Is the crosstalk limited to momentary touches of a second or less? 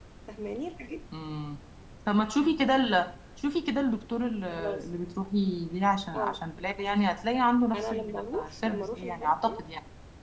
No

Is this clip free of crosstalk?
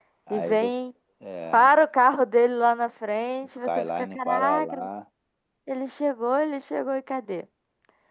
No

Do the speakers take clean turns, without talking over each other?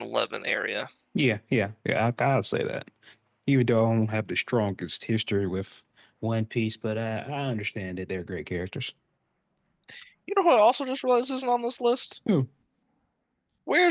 Yes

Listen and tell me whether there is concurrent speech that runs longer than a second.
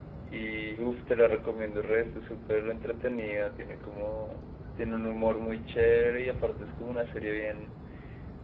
No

